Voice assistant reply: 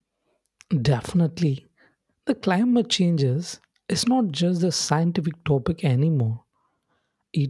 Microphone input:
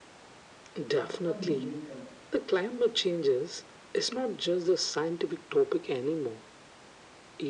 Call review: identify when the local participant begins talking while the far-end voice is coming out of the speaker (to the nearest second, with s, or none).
1 s